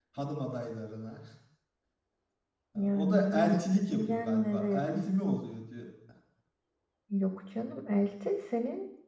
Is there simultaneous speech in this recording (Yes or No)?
Yes